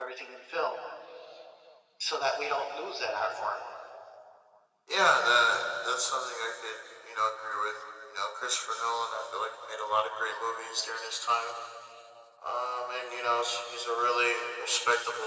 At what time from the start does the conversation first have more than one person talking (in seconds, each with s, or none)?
none